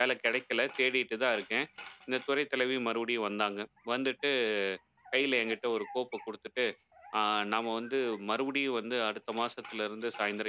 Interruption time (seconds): none

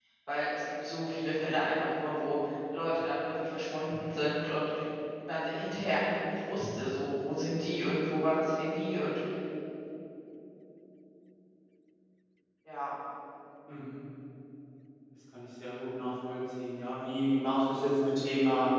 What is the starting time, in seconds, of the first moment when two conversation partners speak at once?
none

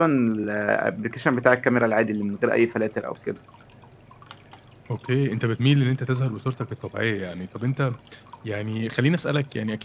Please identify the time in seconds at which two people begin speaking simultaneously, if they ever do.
none

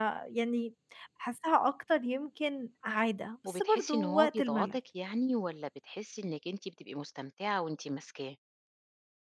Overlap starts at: 3.4 s

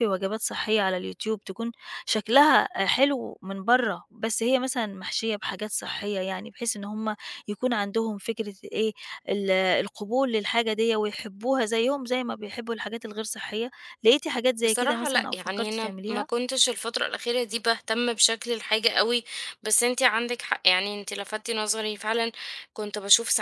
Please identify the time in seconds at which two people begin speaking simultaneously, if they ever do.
14.6 s

